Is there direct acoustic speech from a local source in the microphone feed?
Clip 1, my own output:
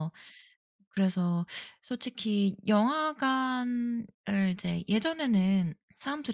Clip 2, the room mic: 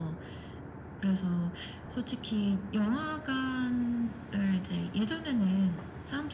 No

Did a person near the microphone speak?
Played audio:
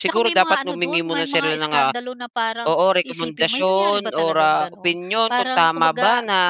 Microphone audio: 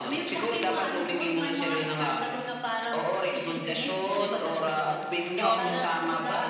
Yes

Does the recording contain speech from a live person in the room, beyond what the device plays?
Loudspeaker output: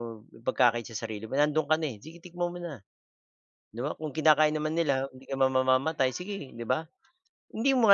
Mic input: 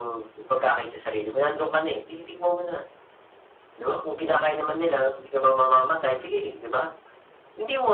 No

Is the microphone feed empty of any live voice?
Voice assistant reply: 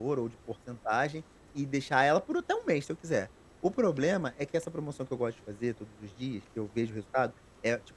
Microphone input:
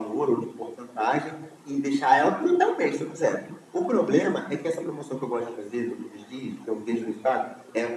Yes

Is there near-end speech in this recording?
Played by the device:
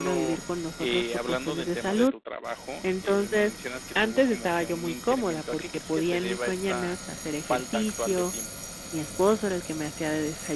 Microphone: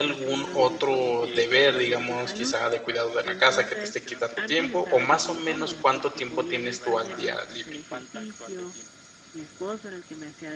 Yes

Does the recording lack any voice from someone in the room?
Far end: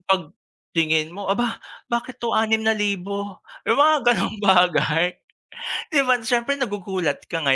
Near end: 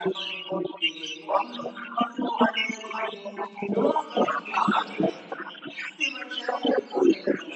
Yes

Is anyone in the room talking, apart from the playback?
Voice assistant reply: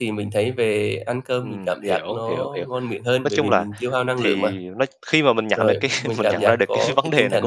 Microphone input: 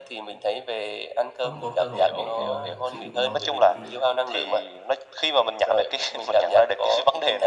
Yes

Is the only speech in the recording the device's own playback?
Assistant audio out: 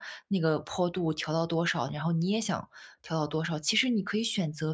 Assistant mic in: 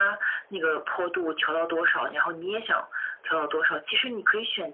Yes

